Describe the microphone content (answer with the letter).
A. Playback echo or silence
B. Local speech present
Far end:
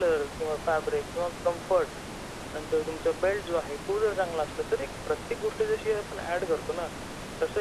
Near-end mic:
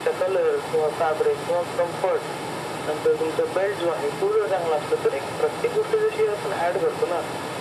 A